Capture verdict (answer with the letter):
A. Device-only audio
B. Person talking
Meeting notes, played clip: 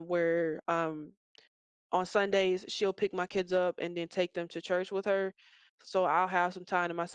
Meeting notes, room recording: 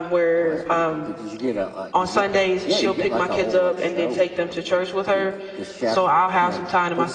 B